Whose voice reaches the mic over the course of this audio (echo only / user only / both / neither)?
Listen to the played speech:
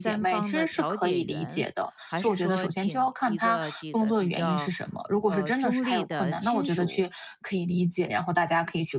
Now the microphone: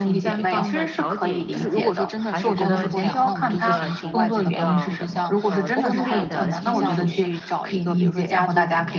both